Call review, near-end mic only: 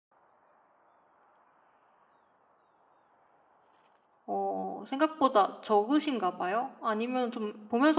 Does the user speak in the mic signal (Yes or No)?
Yes